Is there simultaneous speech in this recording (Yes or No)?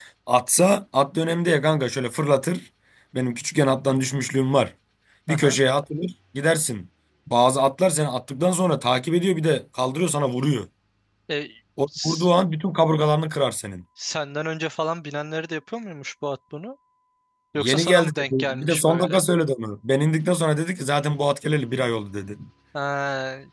Yes